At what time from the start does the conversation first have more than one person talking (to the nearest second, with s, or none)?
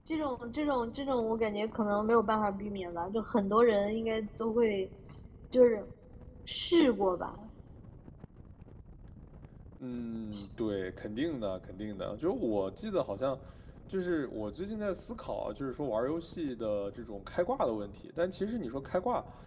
none